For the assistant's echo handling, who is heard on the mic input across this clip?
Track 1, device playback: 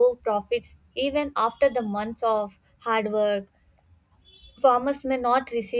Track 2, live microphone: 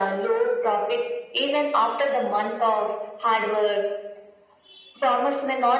echo only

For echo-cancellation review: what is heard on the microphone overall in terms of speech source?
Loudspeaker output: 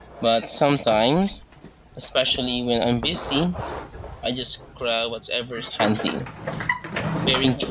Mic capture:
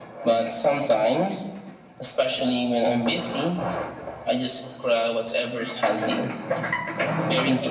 echo only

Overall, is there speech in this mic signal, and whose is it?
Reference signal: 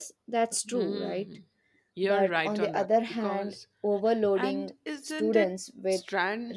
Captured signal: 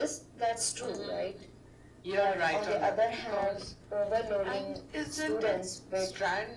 echo only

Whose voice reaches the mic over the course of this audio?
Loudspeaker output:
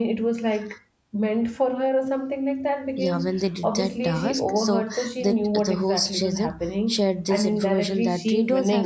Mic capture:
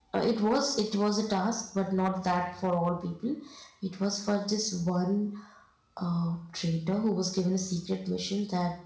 user only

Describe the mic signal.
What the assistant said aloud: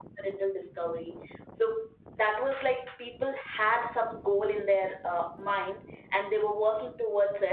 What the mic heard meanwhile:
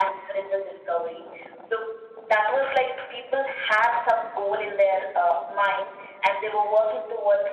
echo only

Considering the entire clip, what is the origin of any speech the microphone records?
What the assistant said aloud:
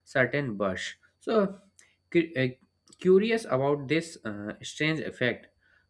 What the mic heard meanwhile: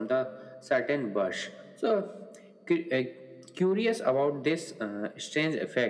echo only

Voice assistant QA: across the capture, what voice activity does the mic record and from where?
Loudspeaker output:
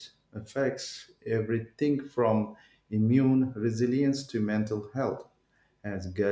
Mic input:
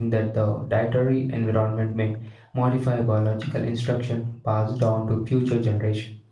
user only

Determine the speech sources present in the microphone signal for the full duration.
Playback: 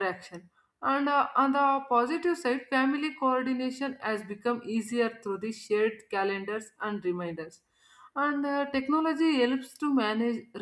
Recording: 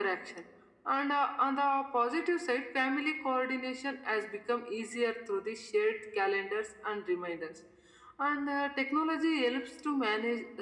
echo only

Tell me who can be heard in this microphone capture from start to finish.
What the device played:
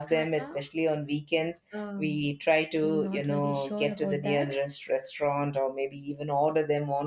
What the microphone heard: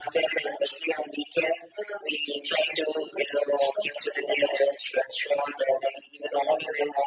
echo only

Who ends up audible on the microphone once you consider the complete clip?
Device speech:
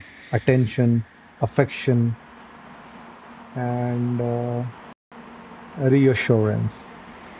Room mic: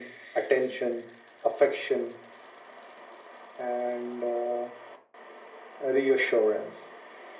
echo only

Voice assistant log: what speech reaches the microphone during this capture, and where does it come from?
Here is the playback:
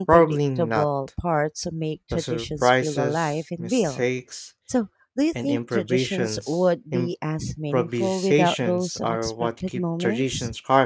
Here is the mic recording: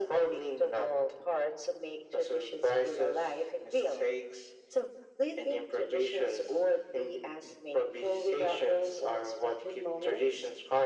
echo only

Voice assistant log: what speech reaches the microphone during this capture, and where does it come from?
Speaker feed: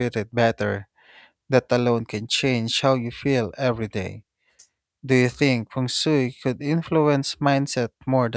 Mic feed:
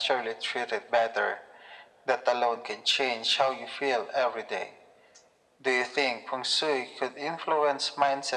echo only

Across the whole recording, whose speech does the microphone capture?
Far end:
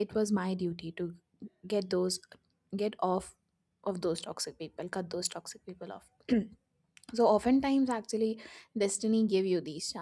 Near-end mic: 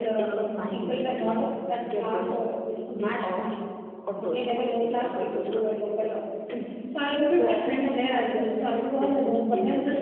both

